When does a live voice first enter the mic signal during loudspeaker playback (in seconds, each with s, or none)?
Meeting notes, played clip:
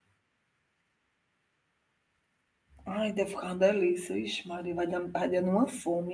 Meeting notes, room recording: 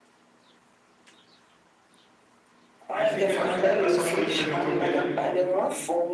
2.9 s